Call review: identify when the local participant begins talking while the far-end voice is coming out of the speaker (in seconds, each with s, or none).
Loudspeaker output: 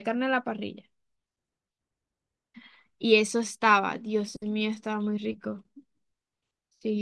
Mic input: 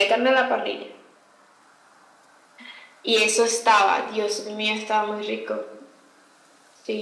none